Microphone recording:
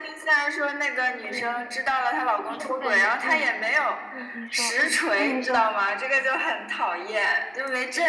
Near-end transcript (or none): 对，就是我感觉，嗯嗯，你说，嗯，啊，你说，